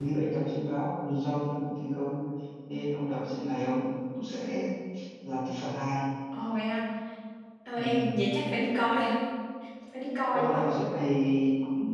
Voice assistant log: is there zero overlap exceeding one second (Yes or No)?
Yes